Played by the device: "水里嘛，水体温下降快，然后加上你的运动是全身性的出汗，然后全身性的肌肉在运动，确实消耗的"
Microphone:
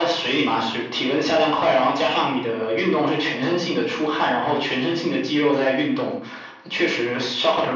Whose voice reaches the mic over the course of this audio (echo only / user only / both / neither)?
echo only